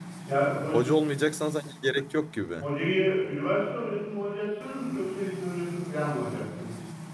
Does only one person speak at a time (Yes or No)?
Yes